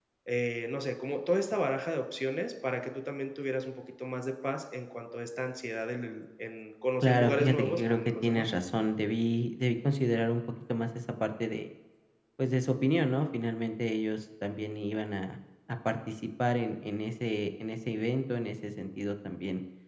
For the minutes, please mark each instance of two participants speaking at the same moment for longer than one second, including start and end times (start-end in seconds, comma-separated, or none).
7.0-8.5